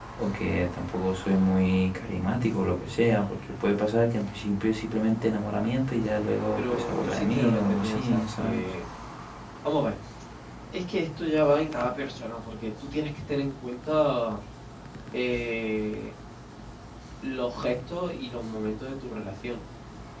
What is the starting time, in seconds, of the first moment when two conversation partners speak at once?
6.6 s

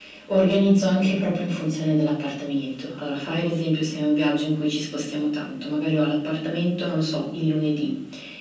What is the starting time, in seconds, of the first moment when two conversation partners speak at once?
none

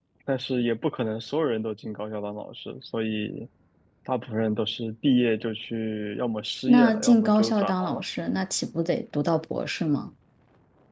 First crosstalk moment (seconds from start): 6.7 s

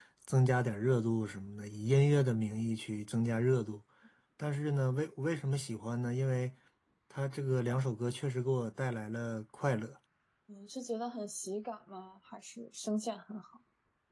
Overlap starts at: none

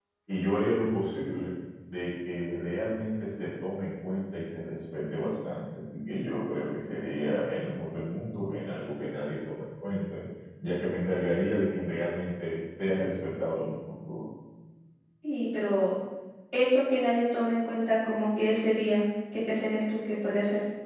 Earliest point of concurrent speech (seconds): none

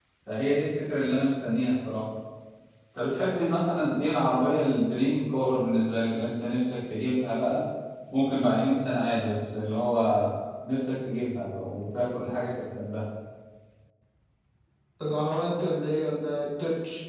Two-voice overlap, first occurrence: none

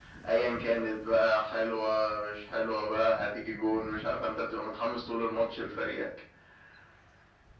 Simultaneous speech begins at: none

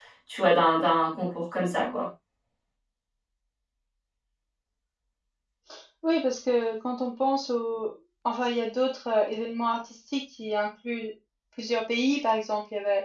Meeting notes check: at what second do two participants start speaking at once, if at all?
none

